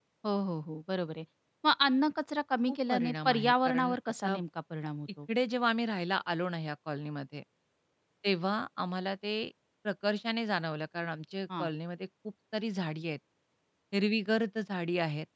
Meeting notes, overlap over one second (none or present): present